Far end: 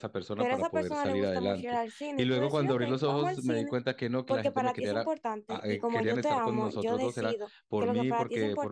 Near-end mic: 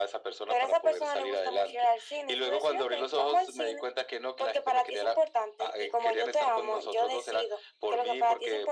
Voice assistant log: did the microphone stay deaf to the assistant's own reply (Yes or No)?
No